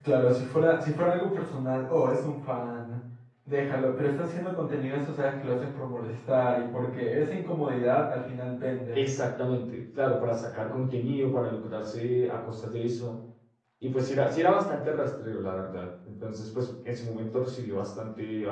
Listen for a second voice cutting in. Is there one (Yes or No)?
No